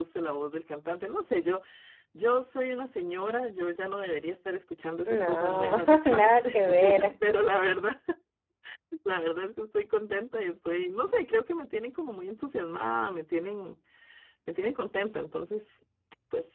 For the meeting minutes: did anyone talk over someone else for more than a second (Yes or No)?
Yes